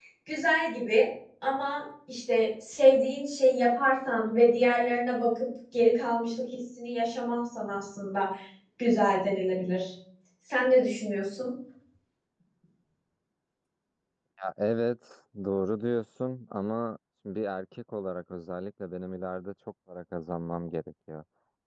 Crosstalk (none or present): none